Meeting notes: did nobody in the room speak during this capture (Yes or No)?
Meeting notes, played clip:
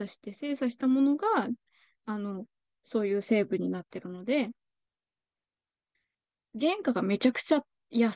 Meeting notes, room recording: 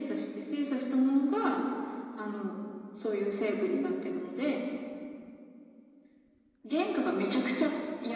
Yes